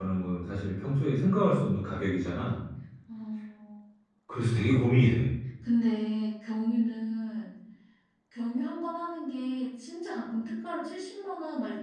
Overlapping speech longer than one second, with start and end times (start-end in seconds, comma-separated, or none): none